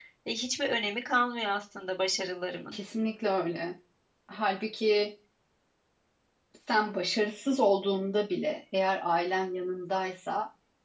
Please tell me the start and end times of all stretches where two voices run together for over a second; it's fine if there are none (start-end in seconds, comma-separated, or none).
none